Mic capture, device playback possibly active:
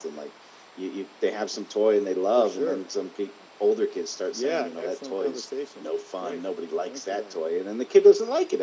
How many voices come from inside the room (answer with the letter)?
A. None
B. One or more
A